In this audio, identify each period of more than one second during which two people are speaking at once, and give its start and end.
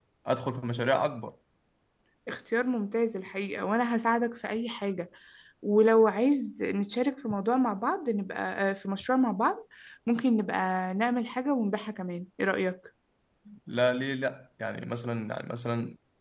none

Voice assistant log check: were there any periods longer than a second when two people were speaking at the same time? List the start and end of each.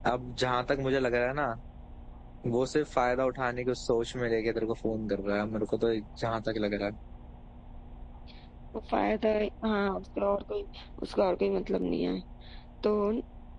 none

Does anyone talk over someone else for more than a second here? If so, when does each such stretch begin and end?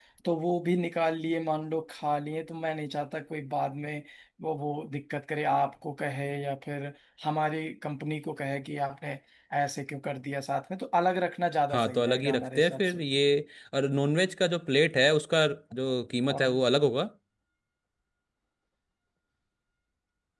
11.7-13.0

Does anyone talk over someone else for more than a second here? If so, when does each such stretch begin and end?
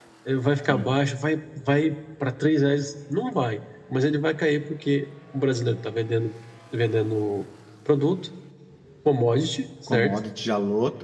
none

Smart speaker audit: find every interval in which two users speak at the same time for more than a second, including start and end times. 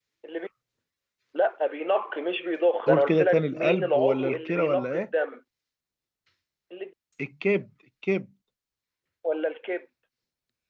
2.9-5.1

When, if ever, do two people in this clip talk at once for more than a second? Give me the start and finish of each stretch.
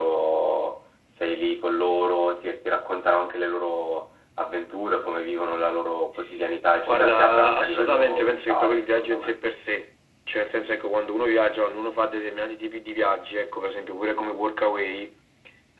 6.9-9.4

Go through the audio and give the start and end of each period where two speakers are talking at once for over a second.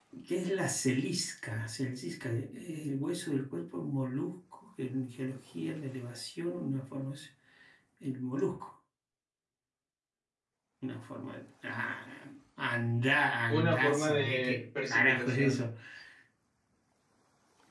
13.5-15.6

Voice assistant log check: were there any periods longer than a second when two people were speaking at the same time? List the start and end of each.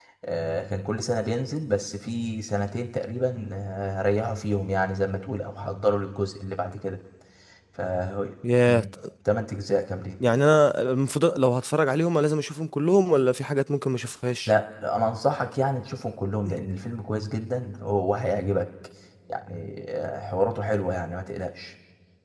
none

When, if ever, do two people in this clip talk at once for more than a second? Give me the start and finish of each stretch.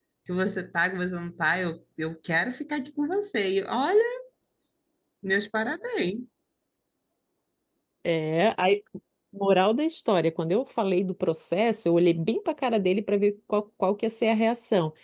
none

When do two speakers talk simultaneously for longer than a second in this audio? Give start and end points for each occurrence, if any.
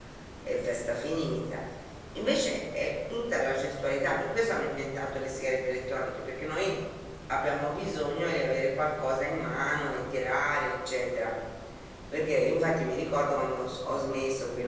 none

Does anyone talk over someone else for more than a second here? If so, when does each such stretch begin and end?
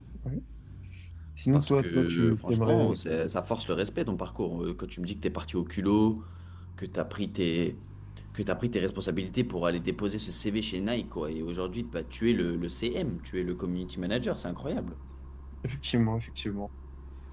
1.5-3.0

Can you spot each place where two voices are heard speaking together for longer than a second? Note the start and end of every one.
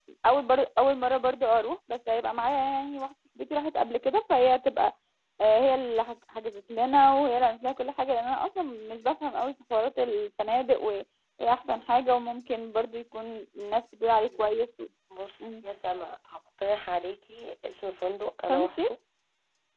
none

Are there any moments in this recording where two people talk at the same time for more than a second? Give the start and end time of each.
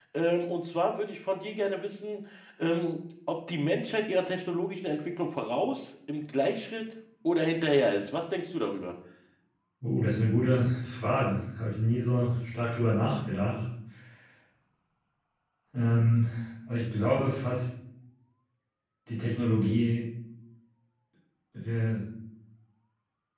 none

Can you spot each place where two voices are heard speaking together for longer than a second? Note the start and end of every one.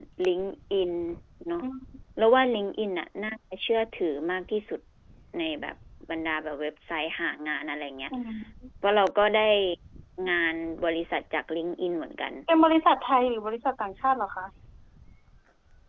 none

